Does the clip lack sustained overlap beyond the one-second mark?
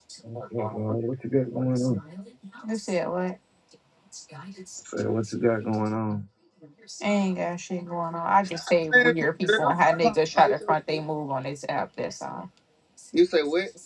No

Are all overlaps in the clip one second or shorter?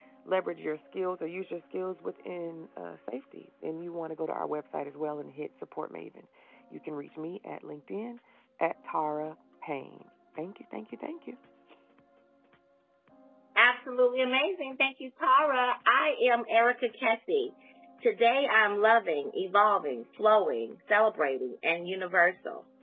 Yes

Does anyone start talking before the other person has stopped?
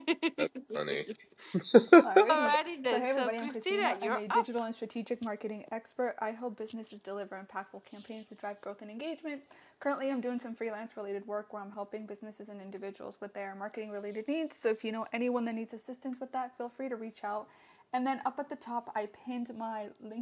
Yes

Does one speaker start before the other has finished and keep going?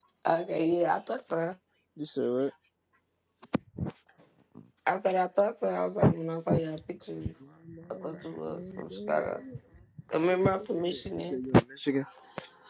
Yes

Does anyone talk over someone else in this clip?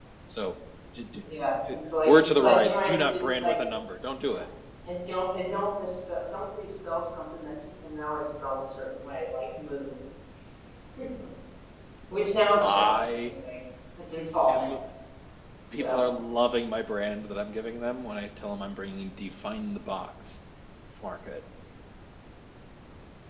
Yes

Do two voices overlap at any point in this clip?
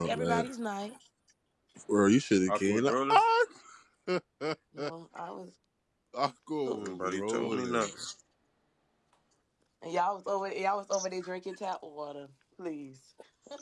Yes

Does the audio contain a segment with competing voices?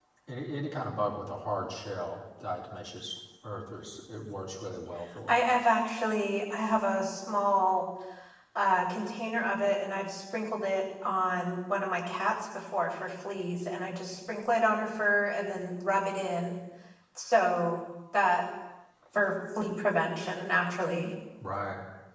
No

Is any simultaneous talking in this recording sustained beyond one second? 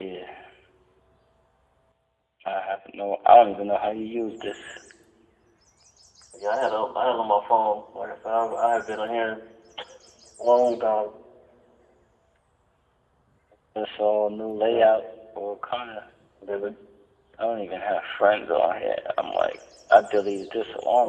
No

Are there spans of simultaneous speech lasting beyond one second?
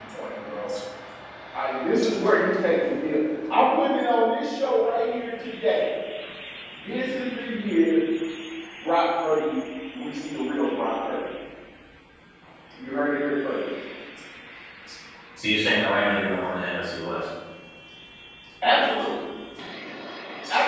No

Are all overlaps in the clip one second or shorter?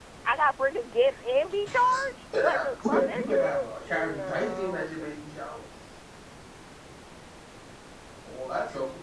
No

